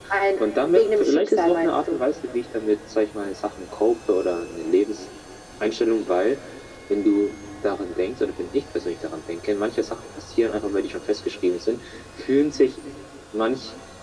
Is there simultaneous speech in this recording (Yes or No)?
Yes